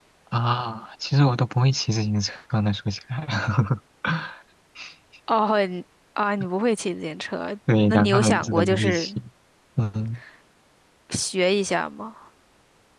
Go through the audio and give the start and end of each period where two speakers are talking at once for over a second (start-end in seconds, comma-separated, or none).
7.9-9.1